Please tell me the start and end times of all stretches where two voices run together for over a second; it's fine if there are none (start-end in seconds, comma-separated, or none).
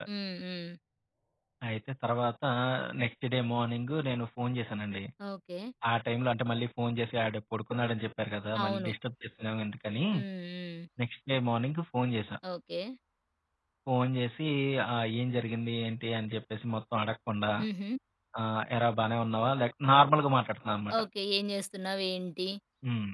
none